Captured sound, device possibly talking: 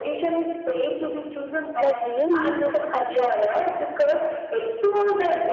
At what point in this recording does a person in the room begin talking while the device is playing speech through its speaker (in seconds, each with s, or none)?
1.8 s